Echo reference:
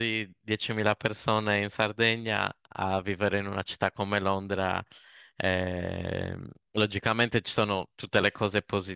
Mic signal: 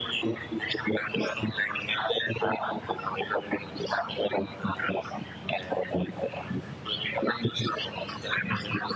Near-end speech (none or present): none